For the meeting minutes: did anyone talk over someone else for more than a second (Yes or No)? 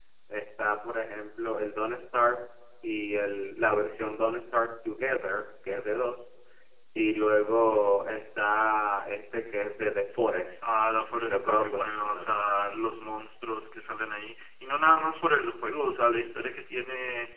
Yes